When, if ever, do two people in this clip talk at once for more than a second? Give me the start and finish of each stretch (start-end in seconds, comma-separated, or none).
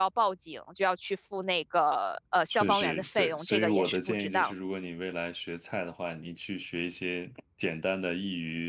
2.5-4.5